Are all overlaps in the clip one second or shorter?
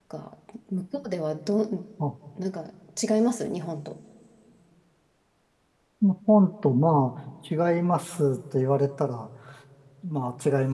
Yes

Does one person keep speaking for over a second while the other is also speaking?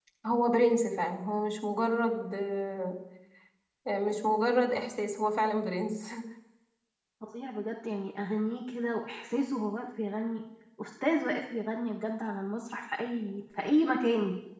No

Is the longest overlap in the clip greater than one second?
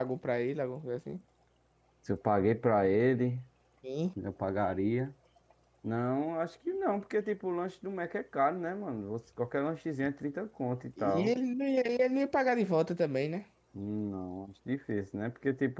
No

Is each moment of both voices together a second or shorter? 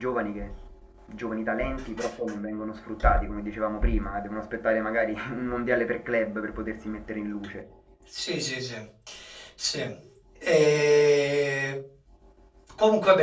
Yes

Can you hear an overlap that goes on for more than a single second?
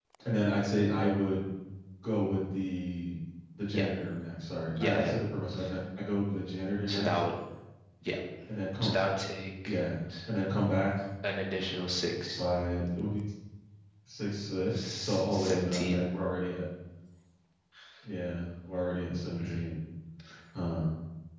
Yes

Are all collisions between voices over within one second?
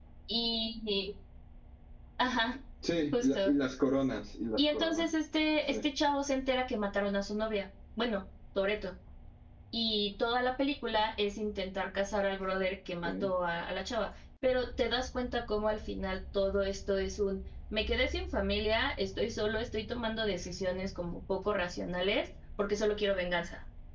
Yes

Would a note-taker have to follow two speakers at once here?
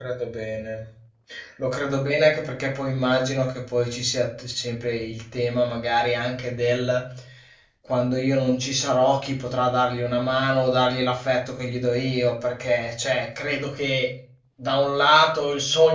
No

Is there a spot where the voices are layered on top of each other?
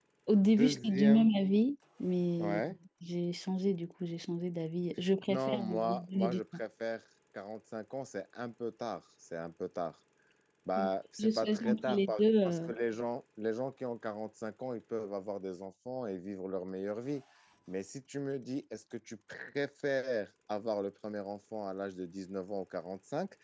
Yes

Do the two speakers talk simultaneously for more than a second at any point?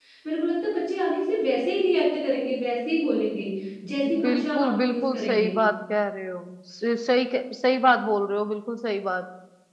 Yes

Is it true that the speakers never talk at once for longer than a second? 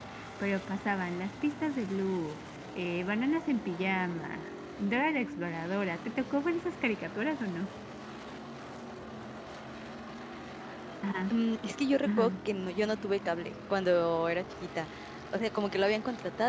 Yes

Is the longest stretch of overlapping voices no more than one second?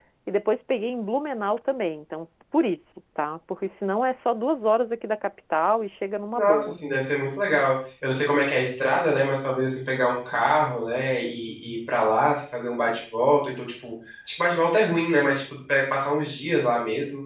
Yes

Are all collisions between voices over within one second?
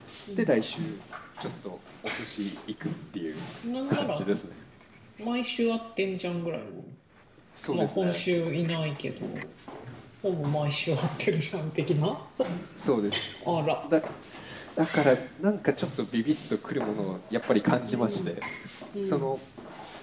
Yes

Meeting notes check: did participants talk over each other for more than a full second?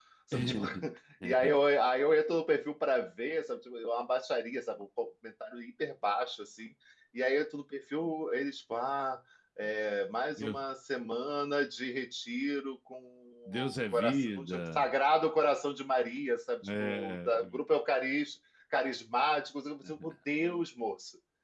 Yes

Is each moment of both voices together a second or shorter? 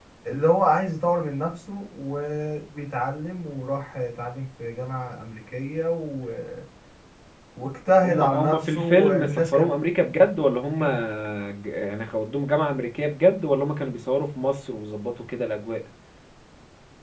No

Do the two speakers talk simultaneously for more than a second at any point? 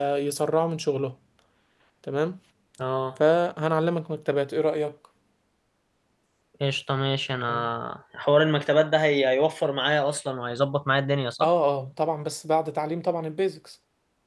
No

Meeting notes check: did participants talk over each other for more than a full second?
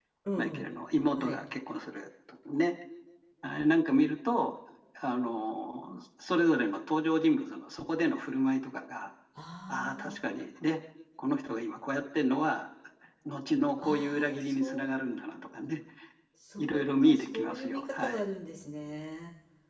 Yes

